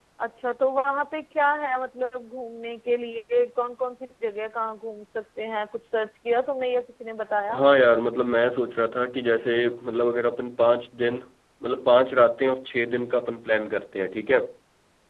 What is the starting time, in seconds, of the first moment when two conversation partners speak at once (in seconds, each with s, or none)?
none